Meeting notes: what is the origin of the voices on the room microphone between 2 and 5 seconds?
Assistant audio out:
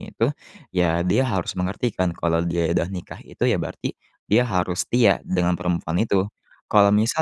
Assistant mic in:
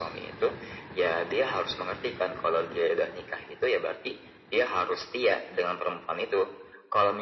echo only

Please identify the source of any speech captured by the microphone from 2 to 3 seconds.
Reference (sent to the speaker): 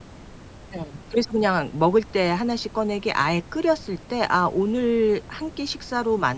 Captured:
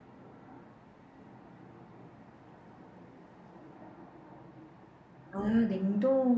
neither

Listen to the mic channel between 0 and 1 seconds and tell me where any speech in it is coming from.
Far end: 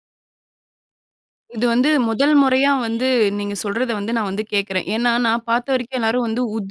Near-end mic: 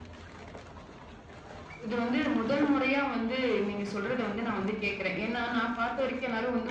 neither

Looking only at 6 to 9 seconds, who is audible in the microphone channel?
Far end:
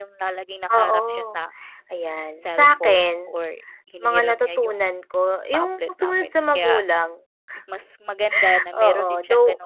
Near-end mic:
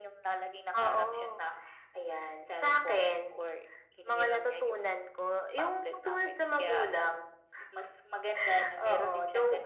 echo only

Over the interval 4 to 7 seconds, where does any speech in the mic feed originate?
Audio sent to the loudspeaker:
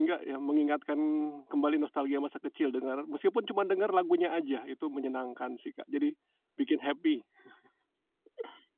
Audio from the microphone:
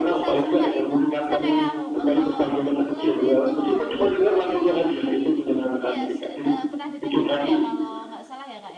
both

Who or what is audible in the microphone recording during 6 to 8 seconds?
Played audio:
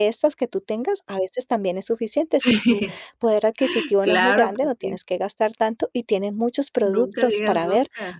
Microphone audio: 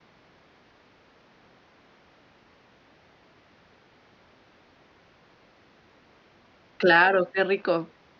user only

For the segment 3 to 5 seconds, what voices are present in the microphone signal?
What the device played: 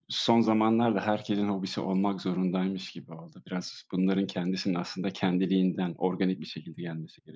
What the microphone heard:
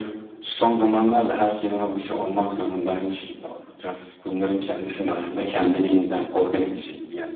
echo only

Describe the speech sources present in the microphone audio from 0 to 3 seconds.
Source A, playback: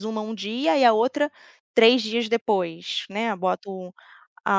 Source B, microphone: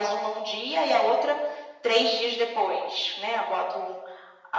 echo only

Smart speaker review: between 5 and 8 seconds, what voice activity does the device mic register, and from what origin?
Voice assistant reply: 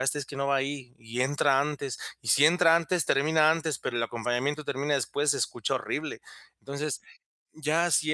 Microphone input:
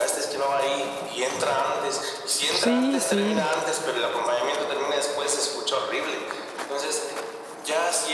echo only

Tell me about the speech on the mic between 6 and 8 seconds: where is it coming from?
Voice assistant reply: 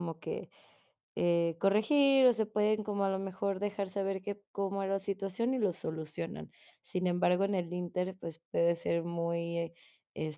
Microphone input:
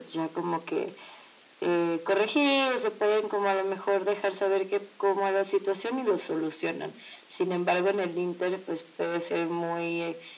echo only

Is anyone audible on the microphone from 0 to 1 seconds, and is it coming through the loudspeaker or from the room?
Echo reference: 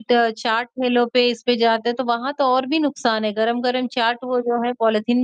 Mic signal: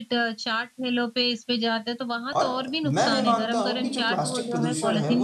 echo only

